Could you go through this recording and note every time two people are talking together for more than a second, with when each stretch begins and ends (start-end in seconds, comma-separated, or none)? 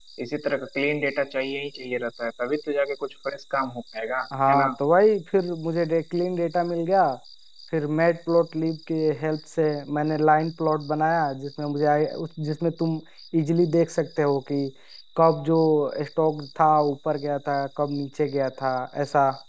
none